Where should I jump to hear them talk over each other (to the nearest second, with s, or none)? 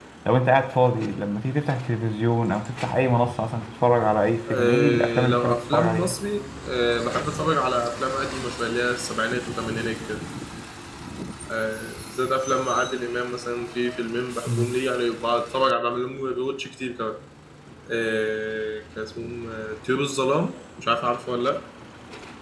4 s